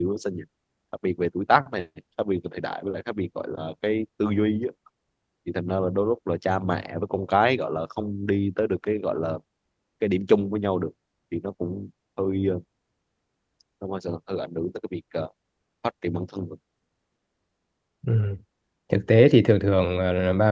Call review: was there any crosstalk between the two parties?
No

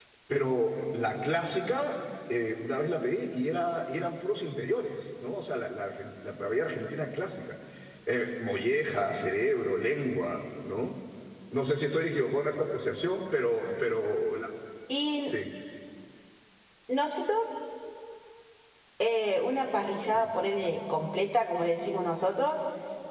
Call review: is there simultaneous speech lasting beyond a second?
No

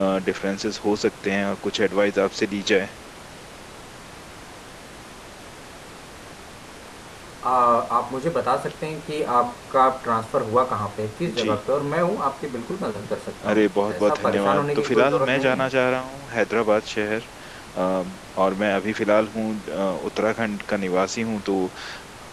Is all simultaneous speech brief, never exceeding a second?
No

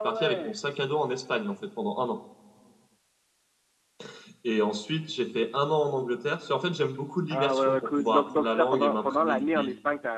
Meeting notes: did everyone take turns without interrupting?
No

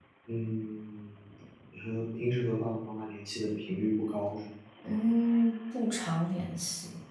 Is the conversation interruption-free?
Yes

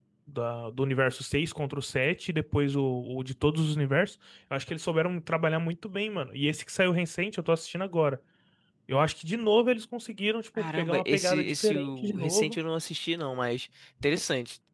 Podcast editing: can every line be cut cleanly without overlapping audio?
No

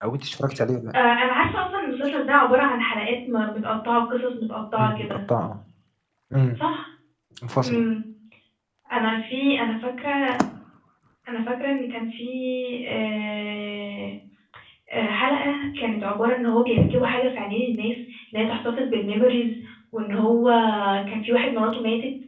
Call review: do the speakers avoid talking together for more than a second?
Yes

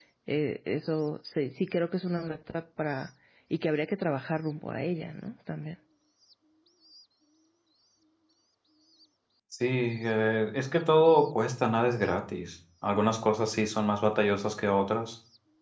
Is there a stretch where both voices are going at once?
No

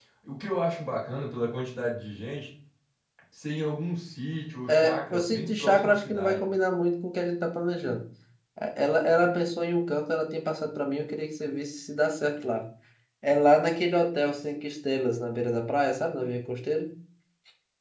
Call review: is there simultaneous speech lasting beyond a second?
Yes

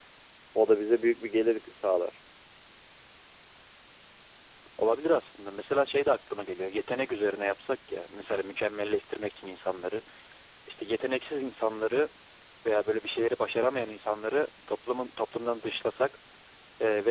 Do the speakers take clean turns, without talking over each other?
Yes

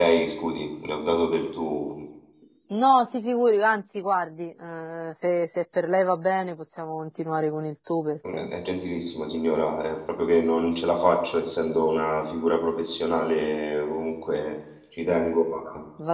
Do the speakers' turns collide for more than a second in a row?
No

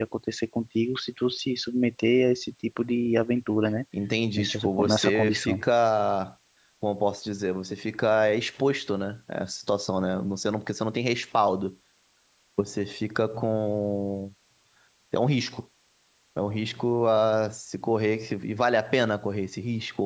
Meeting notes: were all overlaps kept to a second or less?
No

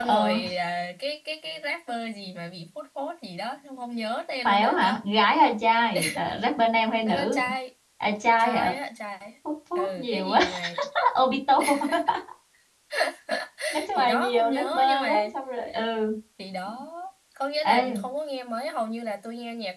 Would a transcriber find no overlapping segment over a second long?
No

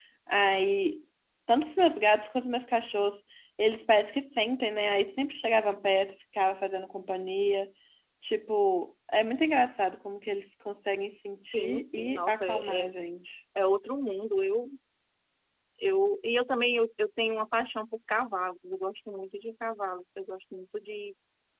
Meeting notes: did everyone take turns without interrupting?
No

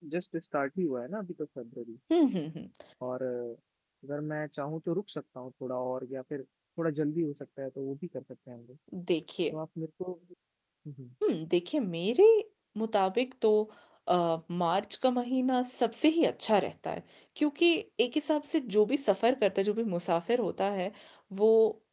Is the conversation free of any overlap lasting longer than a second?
Yes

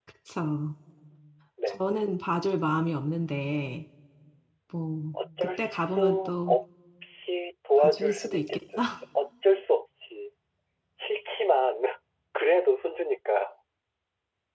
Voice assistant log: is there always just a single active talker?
No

